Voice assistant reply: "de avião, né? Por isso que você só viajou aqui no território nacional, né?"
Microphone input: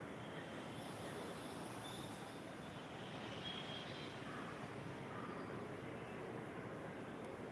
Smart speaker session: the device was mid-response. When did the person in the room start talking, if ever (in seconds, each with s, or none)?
none